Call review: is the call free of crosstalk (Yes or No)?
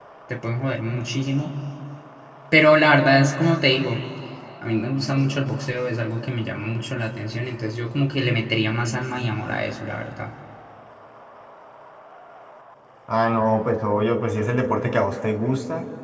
Yes